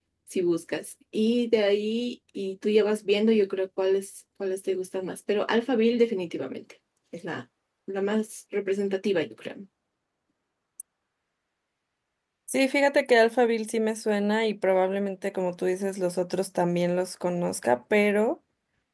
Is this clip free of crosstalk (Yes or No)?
Yes